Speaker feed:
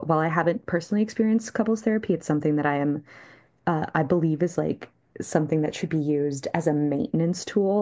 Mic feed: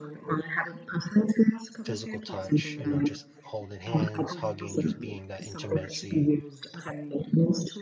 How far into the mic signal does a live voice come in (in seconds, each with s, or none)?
1.8 s